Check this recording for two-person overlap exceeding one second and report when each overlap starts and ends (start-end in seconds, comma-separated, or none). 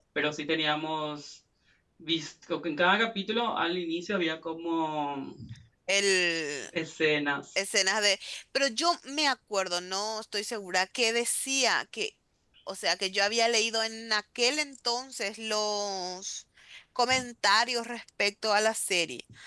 none